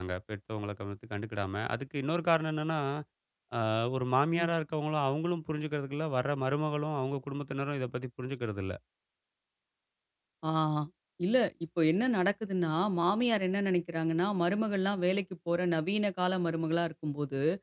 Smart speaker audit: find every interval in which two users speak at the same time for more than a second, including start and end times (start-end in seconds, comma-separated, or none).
none